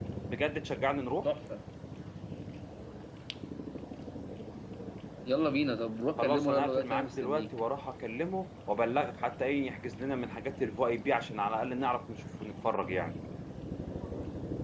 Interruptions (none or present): present